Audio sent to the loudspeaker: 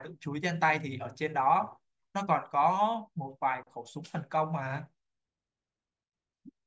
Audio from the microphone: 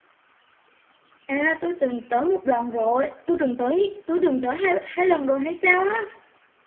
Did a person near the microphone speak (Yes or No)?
Yes